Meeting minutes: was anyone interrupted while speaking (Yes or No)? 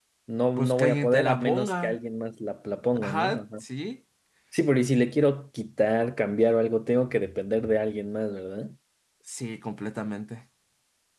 Yes